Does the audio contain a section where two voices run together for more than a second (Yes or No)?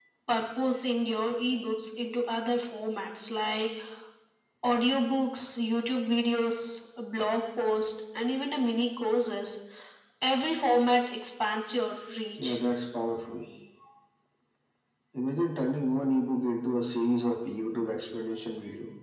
No